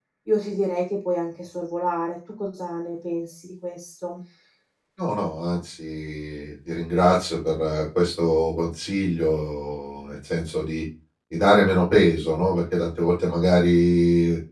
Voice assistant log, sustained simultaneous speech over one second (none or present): none